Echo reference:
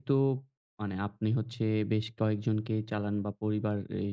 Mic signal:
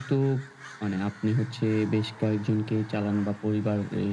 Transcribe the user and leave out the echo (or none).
none